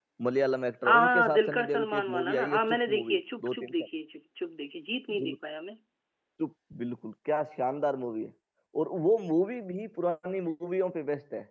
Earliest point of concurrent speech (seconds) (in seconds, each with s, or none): 0.9 s